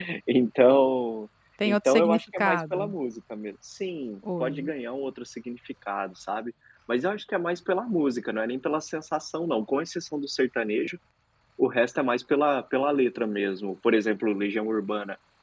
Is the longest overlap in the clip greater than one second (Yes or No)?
Yes